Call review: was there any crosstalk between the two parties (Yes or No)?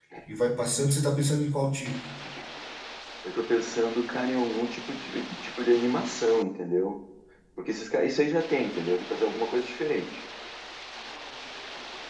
No